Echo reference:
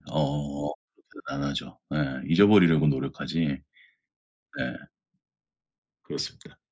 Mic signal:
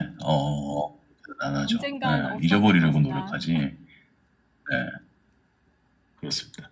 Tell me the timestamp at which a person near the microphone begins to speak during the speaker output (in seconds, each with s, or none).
1.4 s